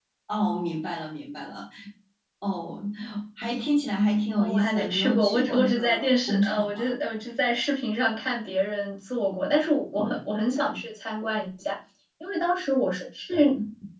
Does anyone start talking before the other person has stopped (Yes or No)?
Yes